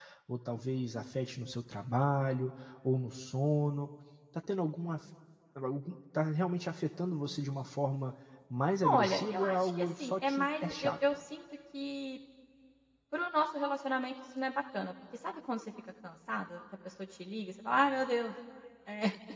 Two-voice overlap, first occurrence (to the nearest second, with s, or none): 9 s